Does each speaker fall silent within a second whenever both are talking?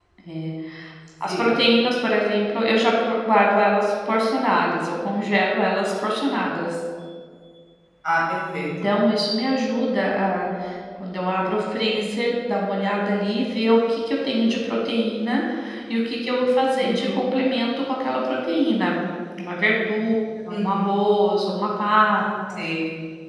Yes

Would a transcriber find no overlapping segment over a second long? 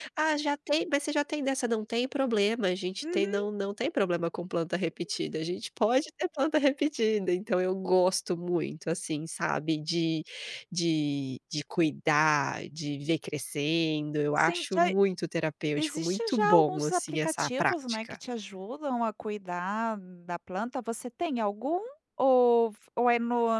No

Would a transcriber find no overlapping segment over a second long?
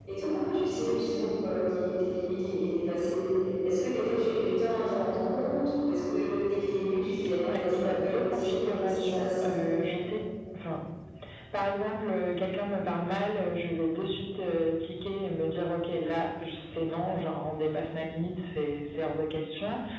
No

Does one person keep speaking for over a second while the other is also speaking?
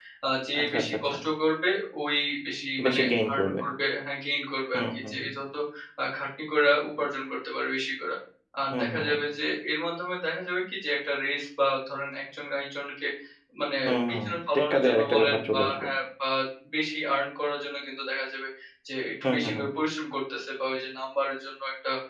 Yes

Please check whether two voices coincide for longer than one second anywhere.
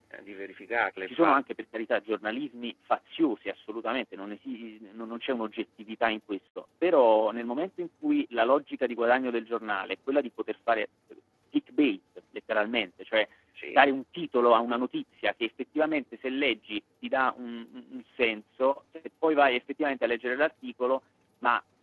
No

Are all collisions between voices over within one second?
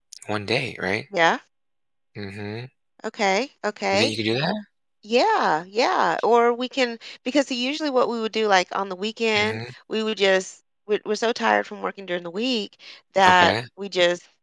Yes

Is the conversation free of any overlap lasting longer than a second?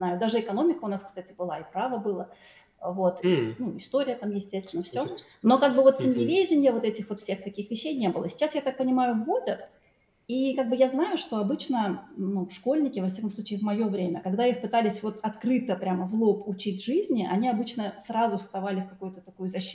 Yes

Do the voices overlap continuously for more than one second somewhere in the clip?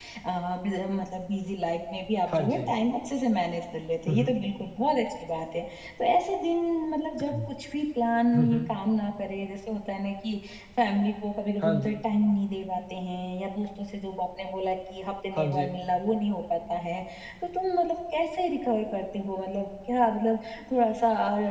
No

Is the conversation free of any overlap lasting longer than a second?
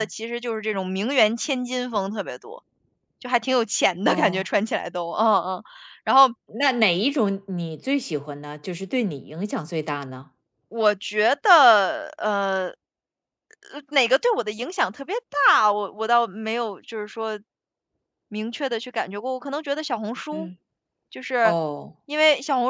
Yes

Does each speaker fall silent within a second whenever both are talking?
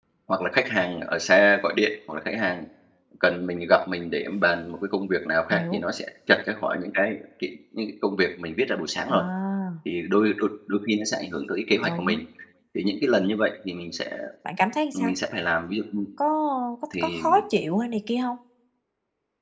Yes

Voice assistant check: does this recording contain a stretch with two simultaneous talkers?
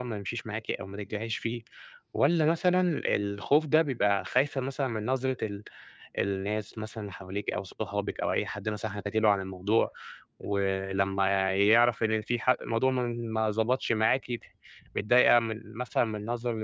No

